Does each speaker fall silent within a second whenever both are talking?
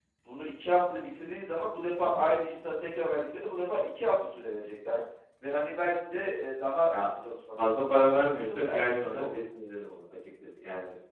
No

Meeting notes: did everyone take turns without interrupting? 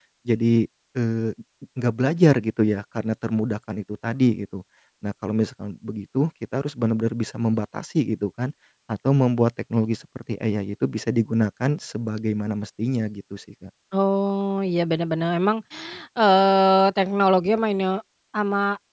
Yes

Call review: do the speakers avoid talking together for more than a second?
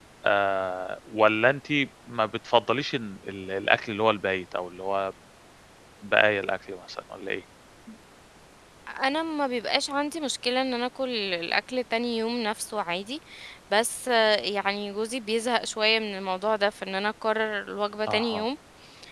Yes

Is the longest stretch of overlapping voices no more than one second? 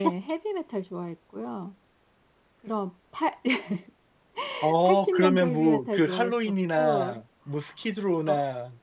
No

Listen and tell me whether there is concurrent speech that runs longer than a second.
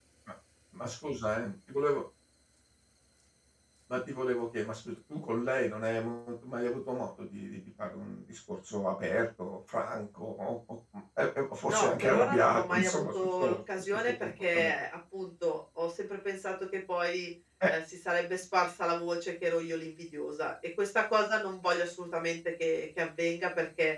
Yes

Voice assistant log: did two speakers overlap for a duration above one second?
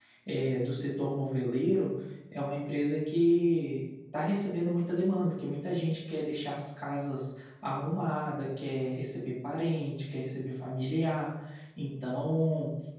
No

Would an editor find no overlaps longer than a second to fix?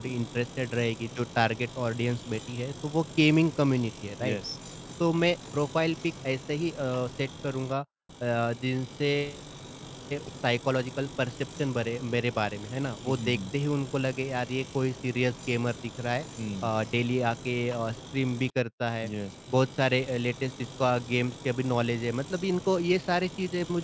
Yes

